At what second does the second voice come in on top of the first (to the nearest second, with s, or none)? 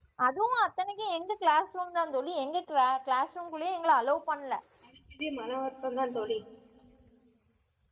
none